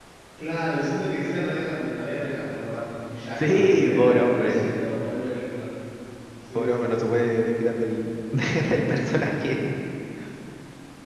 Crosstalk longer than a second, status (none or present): present